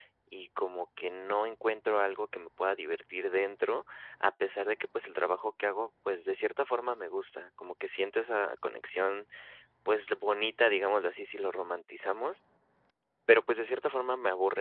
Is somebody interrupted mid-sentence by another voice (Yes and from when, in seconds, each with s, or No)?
No